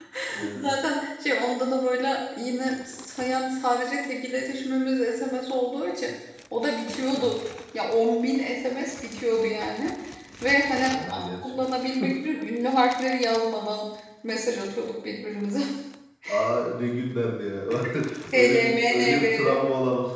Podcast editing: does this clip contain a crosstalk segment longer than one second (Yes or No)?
Yes